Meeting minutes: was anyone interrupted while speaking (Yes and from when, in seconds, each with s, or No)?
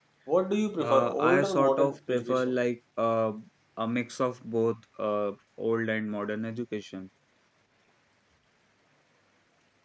Yes, from 0.8 s